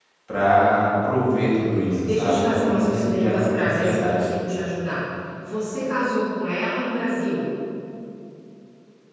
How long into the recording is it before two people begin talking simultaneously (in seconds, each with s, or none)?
2.0 s